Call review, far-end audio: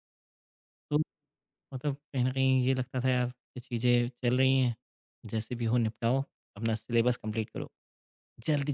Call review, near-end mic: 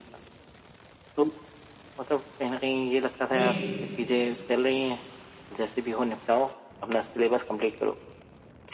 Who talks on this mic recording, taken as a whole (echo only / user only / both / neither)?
both